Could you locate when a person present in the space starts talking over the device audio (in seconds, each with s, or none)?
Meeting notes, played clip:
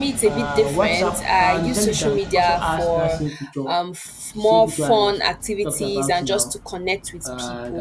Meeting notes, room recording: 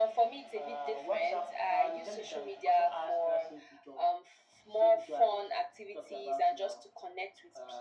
none